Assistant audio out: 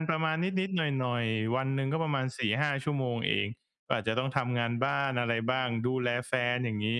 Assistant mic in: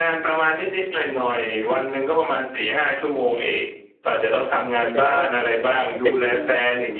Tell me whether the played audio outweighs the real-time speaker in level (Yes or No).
Yes